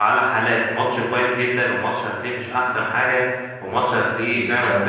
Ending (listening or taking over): listening